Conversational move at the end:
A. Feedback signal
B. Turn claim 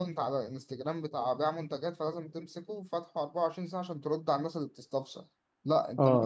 A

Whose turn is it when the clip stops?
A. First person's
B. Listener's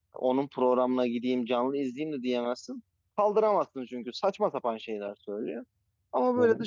A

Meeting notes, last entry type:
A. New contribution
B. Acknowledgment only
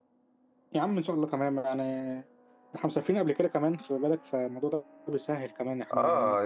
A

